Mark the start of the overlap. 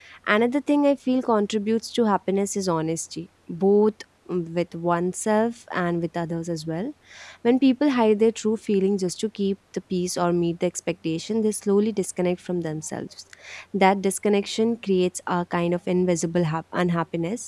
none

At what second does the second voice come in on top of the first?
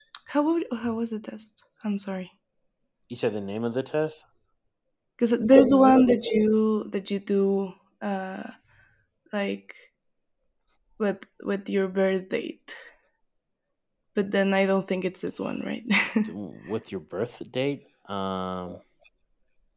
none

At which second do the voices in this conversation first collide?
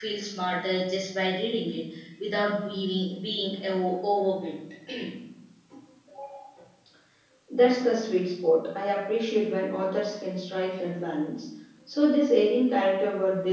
none

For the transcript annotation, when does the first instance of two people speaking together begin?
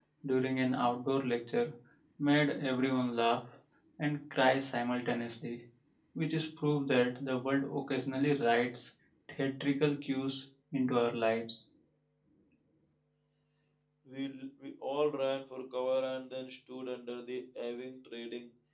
none

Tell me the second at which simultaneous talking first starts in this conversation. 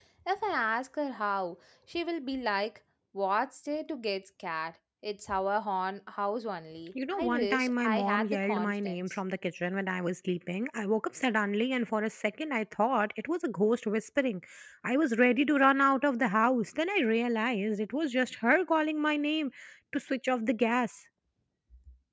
7.0 s

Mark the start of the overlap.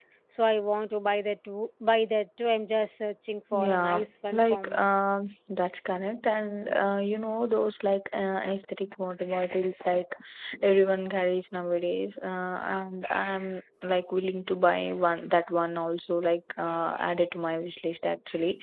3.5 s

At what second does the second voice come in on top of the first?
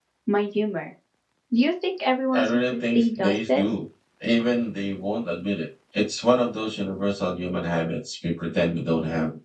2.3 s

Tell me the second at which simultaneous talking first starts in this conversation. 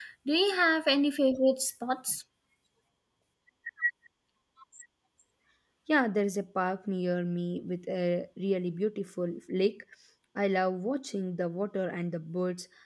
none

